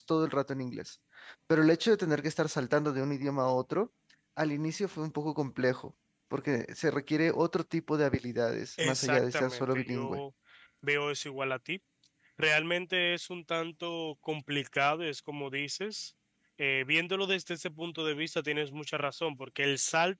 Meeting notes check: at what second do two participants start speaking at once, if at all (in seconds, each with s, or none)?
8.8 s